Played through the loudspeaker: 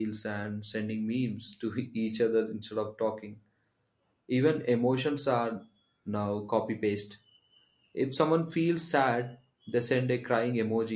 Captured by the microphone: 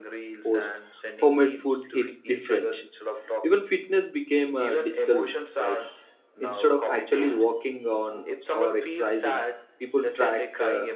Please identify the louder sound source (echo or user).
user